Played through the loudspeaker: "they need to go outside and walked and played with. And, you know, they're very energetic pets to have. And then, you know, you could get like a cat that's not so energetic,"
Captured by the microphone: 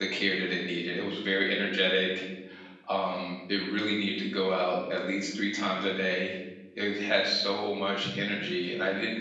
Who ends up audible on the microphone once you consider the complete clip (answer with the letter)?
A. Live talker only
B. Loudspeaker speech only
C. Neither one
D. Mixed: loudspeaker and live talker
A